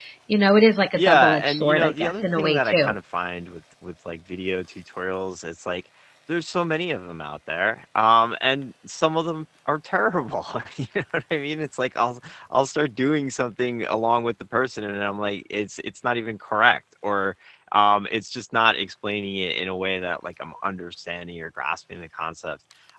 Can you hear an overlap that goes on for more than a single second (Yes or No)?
Yes